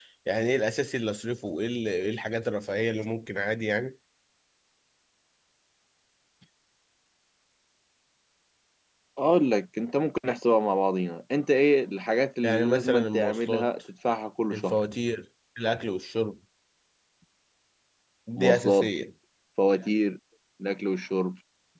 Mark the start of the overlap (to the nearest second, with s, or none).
12 s